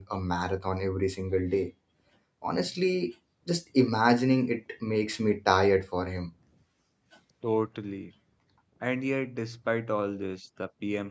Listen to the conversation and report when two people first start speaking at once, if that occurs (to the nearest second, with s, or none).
none